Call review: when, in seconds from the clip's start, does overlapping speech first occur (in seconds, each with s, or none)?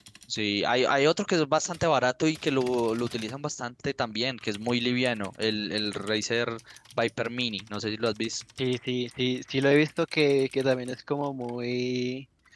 none